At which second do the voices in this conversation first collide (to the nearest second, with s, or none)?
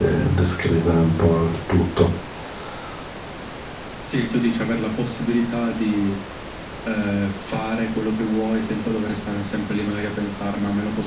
none